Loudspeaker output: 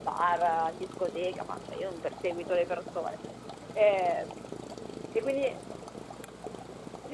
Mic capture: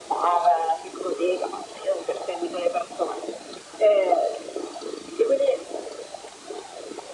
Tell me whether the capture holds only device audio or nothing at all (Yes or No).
Yes